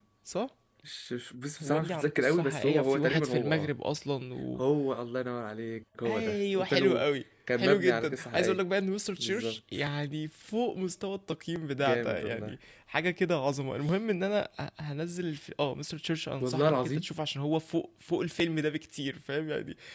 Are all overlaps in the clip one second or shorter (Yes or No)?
No